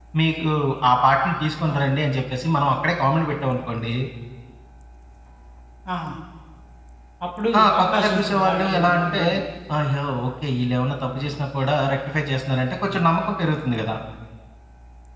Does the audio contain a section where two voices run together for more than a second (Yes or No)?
Yes